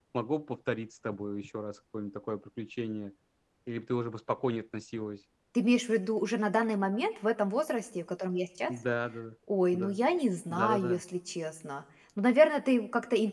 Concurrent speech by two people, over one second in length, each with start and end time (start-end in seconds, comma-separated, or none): none